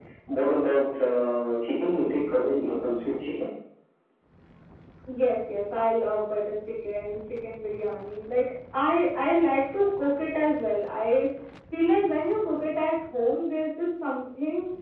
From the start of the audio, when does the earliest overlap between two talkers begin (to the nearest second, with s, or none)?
none